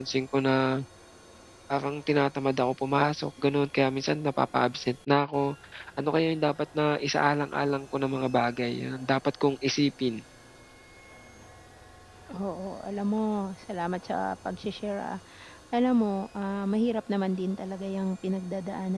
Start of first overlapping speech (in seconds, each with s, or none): none